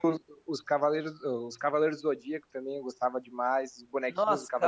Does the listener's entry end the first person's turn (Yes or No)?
Yes